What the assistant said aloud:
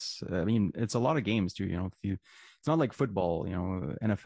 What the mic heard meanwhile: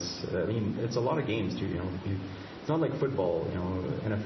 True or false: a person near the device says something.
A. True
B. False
B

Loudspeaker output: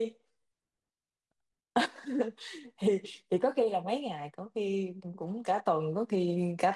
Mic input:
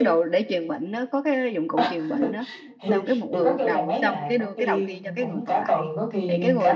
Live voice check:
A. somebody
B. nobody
A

